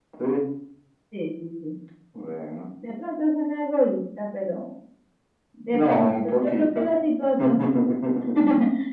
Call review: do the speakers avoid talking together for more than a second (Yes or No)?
No